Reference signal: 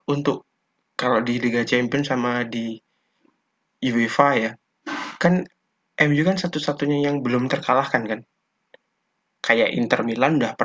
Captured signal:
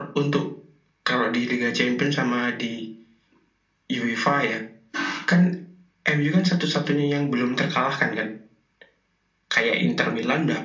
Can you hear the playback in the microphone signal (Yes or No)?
Yes